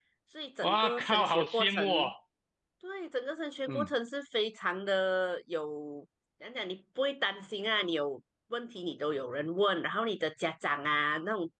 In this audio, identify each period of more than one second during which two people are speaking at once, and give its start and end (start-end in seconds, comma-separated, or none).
0.6-1.9